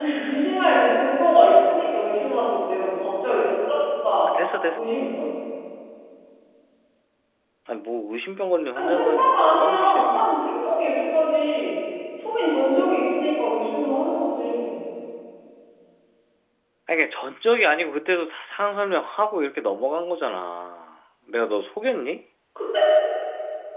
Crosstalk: present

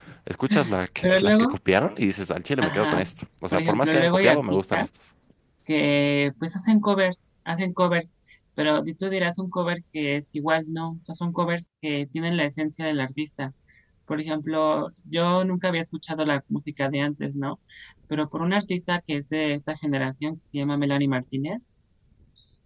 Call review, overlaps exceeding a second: present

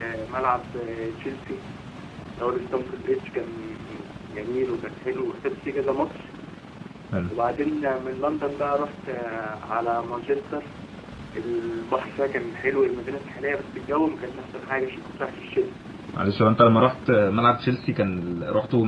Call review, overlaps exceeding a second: none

